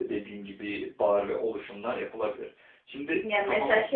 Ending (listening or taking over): taking over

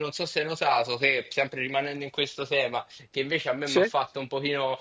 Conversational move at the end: listening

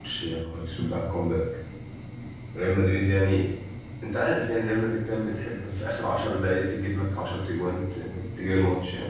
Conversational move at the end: listening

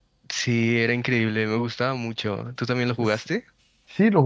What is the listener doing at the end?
taking over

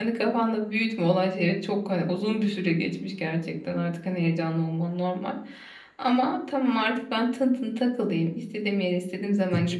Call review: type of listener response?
listening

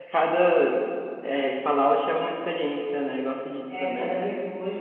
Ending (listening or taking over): taking over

